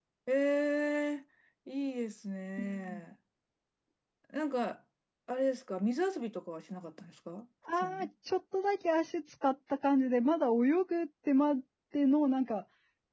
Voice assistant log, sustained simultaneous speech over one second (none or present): none